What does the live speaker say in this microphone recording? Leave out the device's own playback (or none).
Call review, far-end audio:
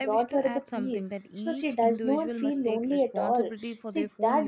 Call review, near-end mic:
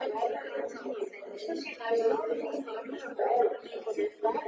none